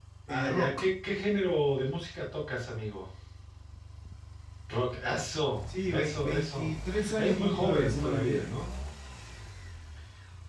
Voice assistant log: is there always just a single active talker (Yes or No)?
No